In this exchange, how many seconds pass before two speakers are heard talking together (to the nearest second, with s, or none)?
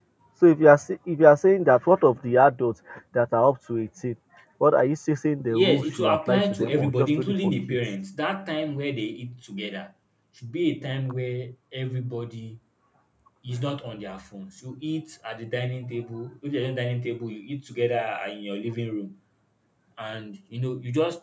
6 s